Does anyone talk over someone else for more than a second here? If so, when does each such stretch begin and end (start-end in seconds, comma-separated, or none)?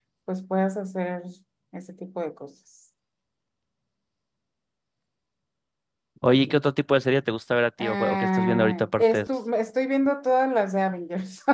7.8-9.3